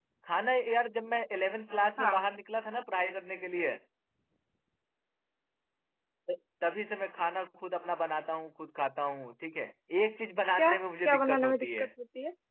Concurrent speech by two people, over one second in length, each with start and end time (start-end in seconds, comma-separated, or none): 10.6-11.9